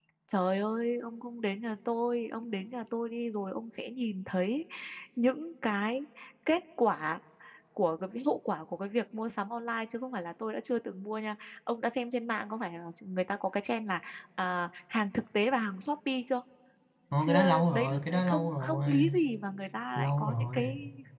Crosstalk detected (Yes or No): Yes